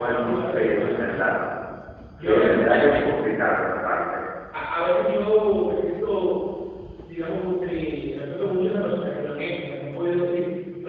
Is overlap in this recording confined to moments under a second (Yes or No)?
No